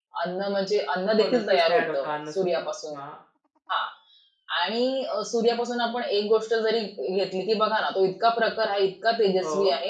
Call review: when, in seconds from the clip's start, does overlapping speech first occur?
1.2 s

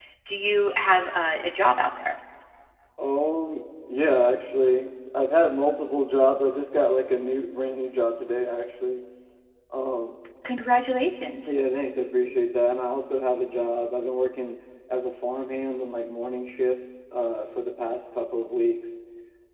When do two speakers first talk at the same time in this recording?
none

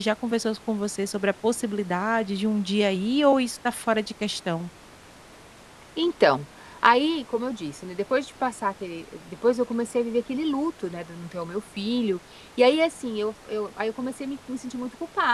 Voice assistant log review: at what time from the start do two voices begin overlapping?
none

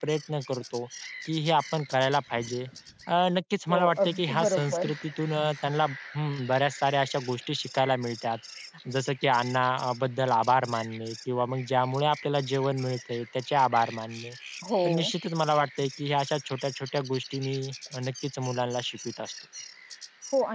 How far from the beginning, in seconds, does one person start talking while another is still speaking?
3.7 s

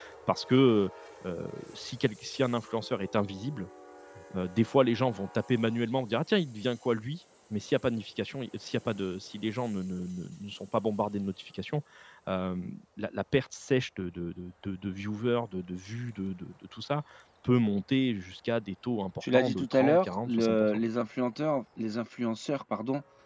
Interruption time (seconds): 19.2 s

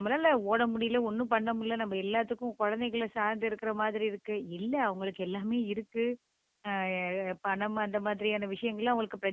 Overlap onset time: none

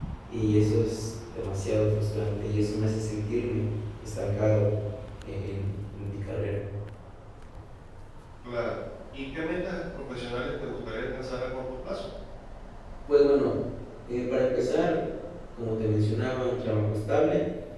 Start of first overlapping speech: none

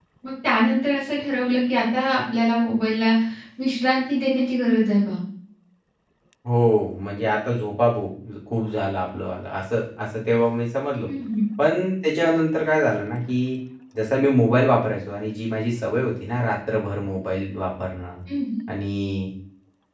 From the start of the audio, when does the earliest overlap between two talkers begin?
none

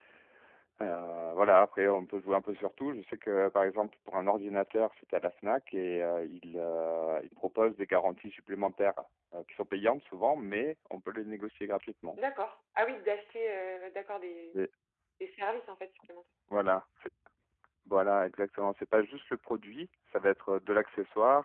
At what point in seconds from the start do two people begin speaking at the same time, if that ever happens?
none

